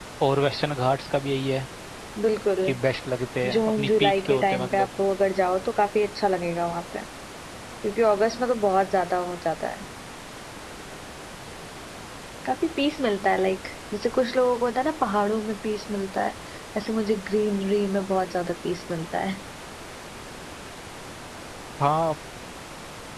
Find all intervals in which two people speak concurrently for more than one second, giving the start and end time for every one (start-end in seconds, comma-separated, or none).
3.5-4.9